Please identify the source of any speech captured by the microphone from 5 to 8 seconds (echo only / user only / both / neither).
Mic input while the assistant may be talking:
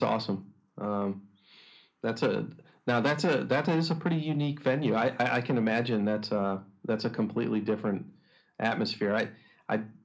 echo only